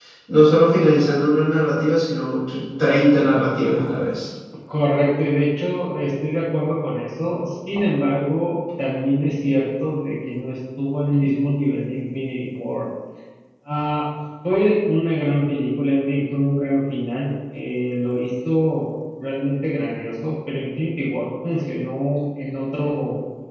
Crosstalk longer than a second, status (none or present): none